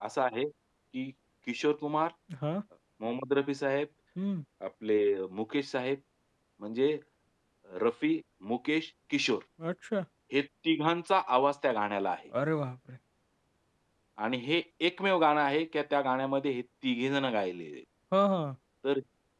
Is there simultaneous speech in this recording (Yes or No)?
No